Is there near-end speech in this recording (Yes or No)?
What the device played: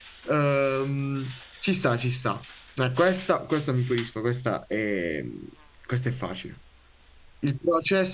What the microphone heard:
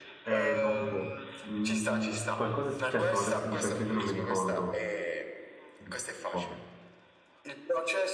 Yes